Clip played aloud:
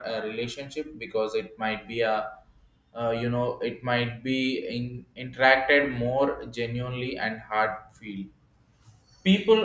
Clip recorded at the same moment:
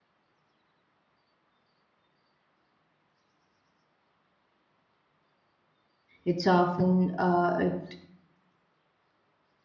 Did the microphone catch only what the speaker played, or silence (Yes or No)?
No